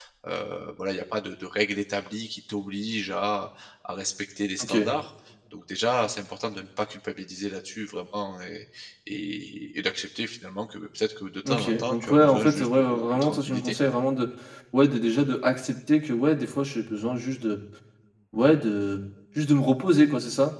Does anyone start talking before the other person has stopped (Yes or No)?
Yes